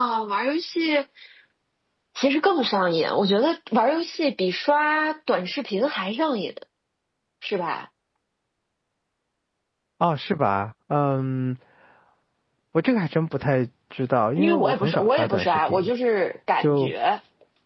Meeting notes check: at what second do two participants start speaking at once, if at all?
14.4 s

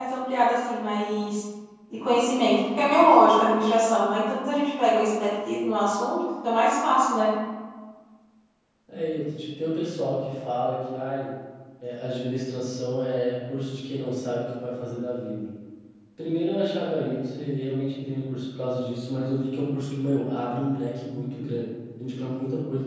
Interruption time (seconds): none

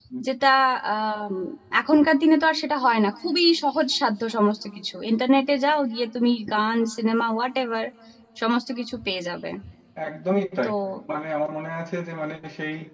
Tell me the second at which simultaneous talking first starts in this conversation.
none

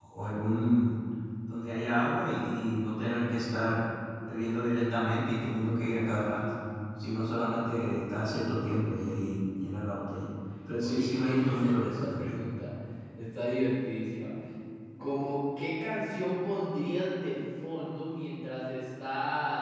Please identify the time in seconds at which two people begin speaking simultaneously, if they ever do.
10.8 s

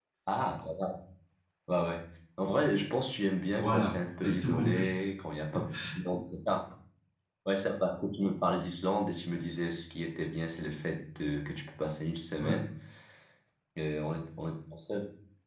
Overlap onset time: 3.5 s

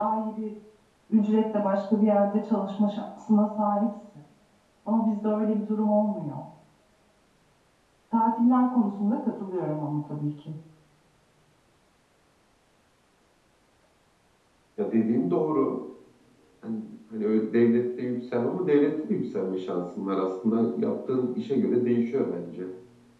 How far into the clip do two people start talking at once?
none

